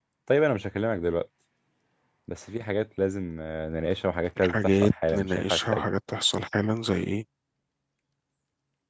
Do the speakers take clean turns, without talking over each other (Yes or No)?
No